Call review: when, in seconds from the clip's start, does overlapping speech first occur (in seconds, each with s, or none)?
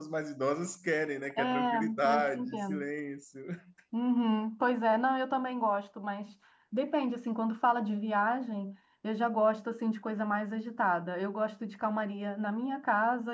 1.3 s